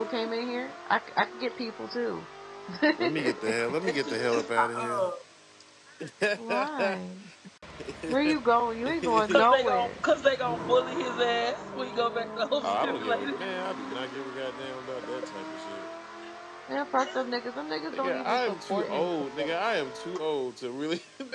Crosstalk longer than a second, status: present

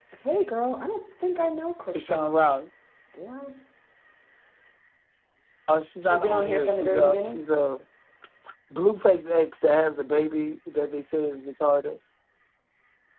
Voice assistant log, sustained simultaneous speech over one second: present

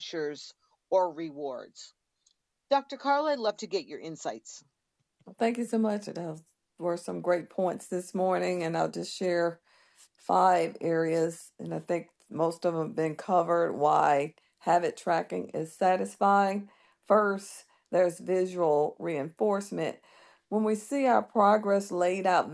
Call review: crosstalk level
none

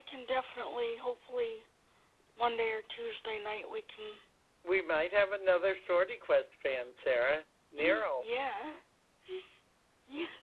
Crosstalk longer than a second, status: none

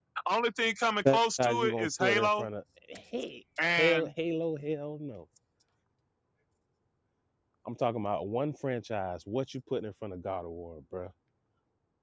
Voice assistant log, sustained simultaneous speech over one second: present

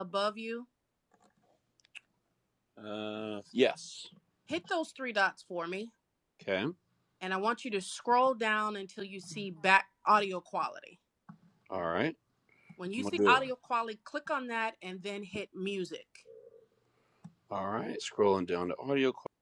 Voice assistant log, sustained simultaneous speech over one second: none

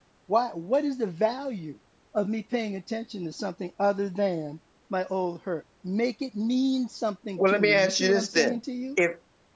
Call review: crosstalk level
present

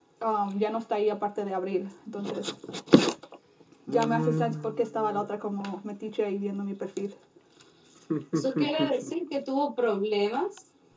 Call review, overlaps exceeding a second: present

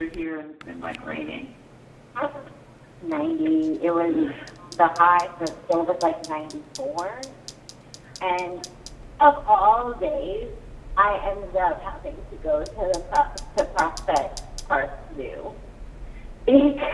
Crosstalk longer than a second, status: none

